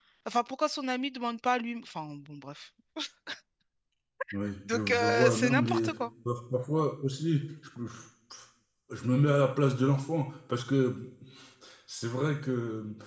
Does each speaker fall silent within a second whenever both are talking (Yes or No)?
No